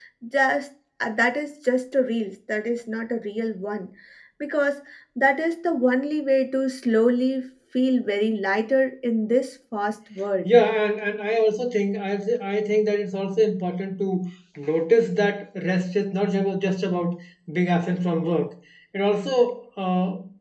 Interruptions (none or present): none